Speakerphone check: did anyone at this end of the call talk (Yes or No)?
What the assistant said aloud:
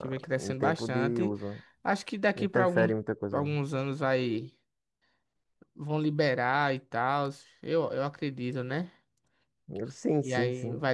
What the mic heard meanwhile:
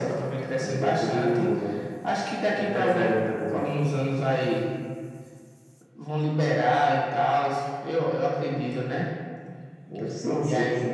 No